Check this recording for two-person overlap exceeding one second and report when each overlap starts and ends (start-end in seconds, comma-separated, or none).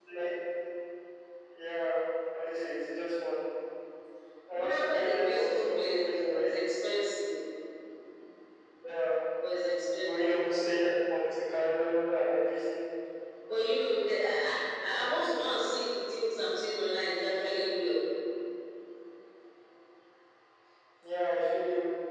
4.5-6.5